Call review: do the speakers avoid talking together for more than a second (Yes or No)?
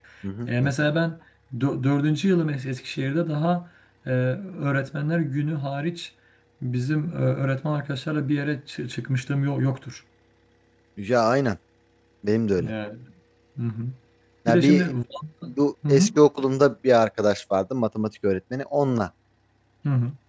Yes